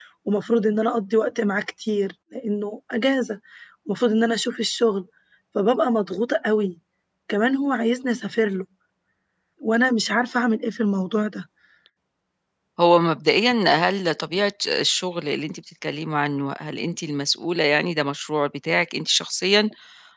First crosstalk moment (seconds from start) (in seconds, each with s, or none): none